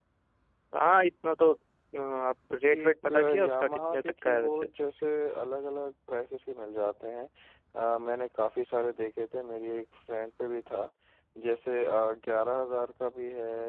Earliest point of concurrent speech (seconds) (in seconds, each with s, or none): 2.7 s